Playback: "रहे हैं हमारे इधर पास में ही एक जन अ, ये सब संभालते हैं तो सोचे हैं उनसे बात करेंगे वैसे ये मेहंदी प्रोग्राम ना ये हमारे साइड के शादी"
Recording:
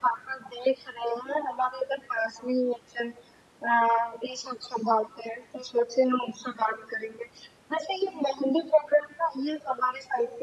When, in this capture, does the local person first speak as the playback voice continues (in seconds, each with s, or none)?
none